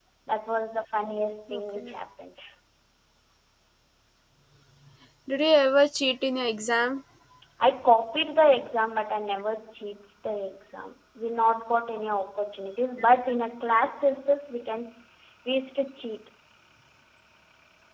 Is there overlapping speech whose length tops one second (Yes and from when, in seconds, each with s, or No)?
No